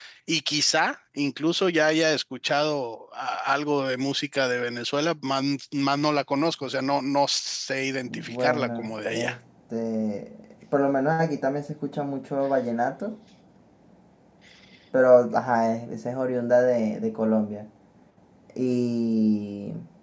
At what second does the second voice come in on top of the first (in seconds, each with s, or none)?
8.1 s